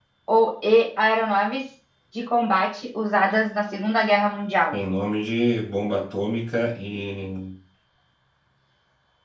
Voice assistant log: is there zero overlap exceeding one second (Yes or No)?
Yes